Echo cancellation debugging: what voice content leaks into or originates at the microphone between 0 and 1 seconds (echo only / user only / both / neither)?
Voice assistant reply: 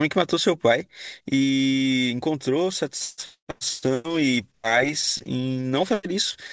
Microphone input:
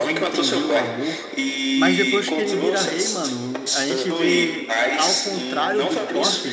both